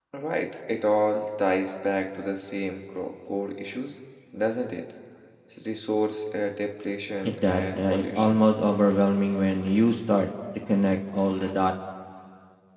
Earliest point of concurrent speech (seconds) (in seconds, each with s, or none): 7.2 s